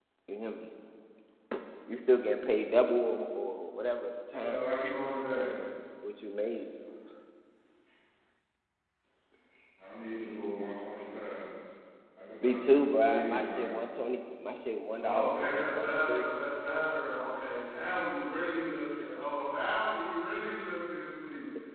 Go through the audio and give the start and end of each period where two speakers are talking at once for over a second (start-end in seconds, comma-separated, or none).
12.4-13.7, 15.0-16.3